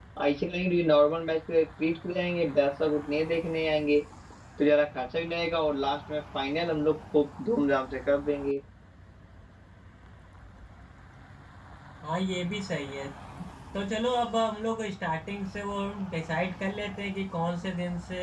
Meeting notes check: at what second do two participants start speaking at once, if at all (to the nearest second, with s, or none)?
none